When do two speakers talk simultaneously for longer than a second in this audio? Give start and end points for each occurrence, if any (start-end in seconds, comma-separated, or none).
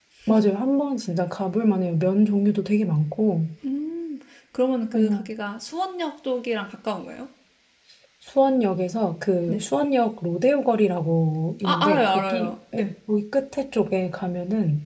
11.6-12.9